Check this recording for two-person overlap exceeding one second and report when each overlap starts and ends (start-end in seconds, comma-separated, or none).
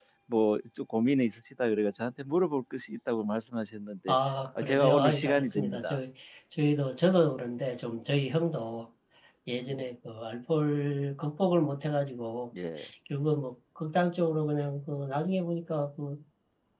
4.5-6.0